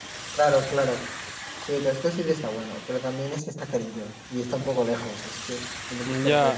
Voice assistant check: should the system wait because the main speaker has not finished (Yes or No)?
No